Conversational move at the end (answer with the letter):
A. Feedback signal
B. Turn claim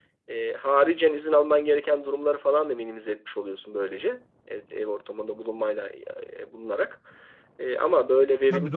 B